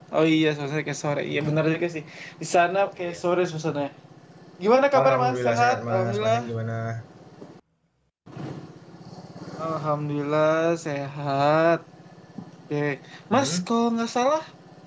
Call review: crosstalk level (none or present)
present